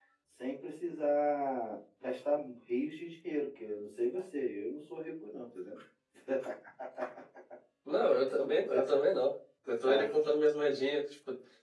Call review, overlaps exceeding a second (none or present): none